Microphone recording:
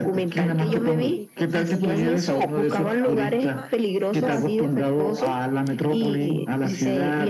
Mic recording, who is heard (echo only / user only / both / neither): both